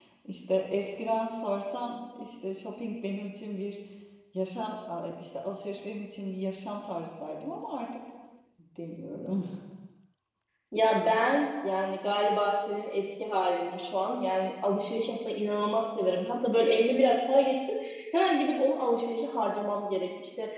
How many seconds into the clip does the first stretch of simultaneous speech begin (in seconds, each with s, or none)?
none